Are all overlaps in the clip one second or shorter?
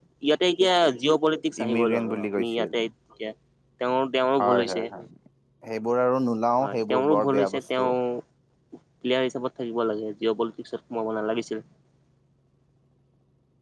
No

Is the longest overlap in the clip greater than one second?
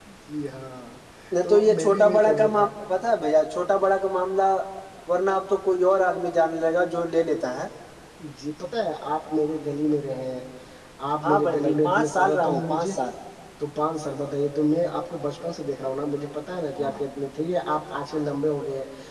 Yes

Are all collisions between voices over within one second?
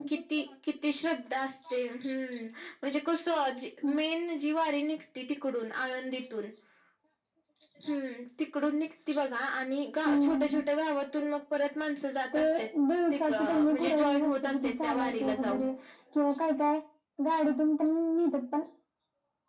No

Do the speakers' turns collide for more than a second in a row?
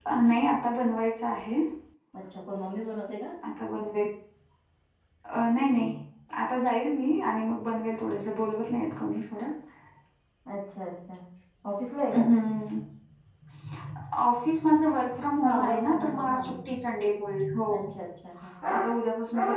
Yes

